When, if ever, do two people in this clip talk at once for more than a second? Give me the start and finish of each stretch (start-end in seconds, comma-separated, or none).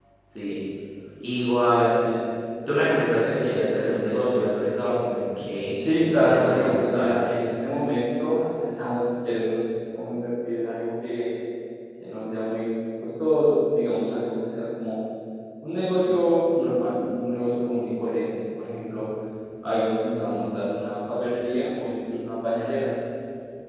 5.8-7.1